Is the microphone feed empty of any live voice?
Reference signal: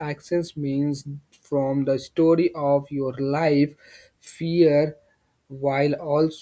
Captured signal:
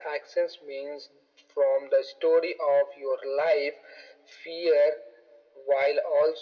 Yes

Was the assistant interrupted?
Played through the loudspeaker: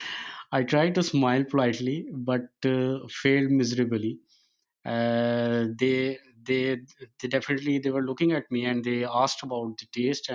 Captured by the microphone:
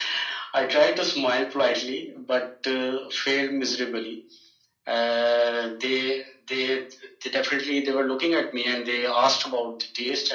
No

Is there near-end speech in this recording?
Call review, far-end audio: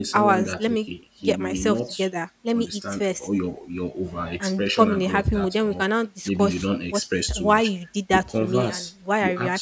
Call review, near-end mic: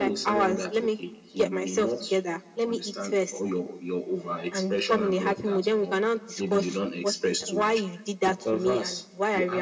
No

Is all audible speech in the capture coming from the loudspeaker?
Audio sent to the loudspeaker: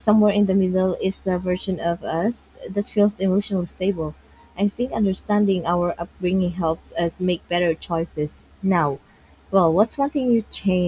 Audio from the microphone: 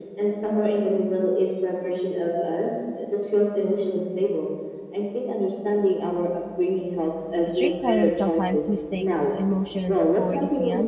No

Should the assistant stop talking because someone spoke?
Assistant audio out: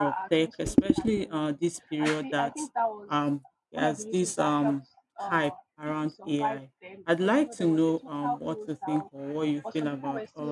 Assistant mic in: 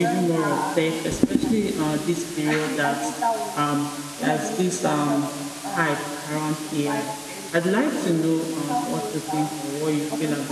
No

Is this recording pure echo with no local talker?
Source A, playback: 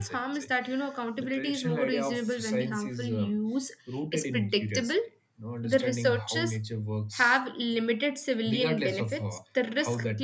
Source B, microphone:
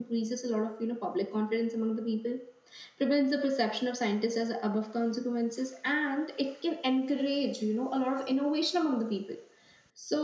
No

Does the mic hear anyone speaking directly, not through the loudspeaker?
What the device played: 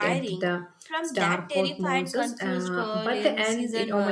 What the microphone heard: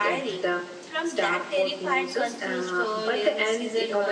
No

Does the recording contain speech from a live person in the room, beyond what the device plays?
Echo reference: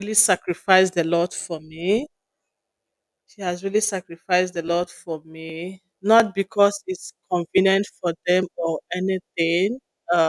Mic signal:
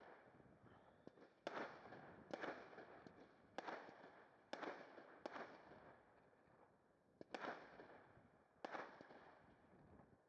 No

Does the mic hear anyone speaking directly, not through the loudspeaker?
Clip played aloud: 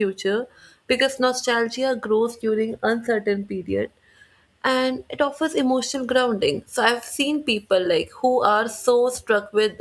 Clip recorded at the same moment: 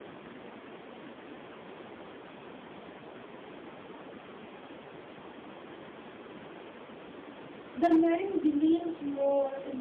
Yes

